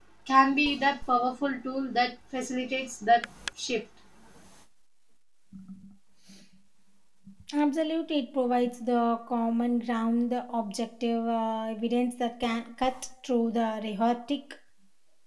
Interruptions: none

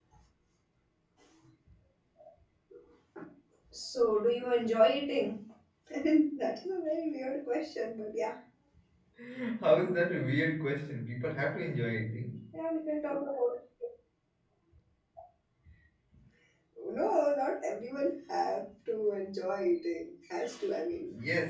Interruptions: none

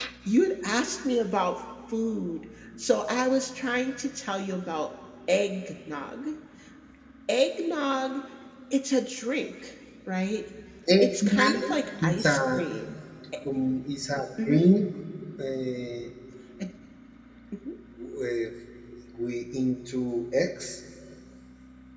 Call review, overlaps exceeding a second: present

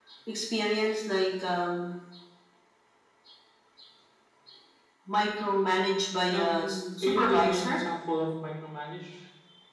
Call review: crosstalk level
present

